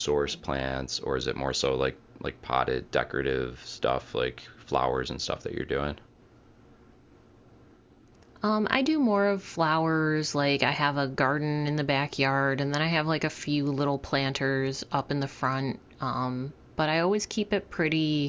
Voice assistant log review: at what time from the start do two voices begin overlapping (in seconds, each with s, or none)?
none